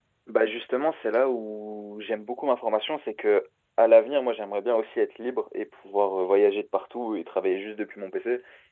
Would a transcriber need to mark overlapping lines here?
No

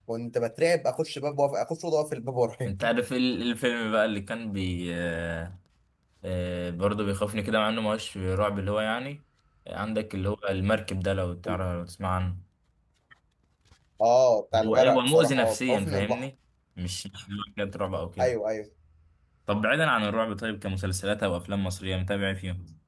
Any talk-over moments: Yes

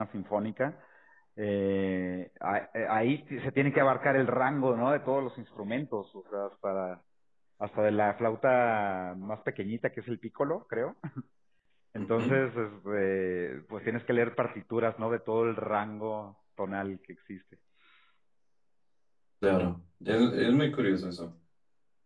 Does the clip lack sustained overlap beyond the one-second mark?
Yes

